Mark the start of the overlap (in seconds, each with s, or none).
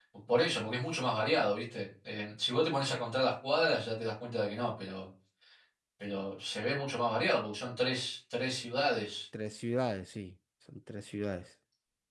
none